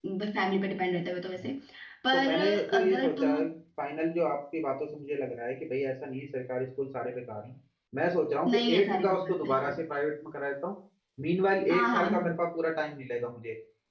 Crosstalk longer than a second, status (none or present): present